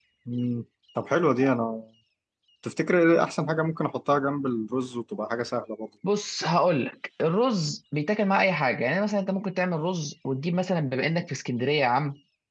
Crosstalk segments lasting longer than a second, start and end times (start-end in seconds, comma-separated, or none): none